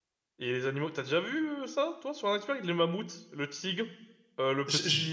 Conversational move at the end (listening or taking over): listening